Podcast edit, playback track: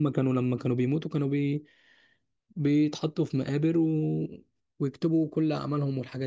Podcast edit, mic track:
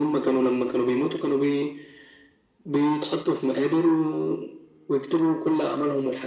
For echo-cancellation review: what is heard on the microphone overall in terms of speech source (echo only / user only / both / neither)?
echo only